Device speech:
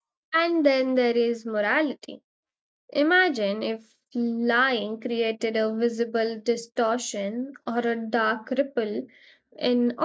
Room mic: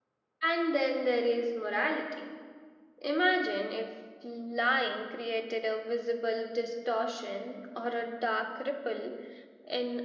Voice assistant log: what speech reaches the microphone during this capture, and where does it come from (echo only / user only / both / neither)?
echo only